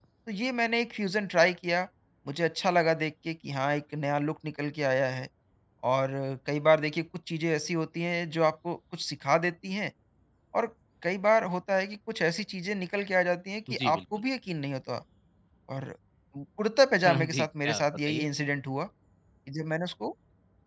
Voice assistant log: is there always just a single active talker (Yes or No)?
No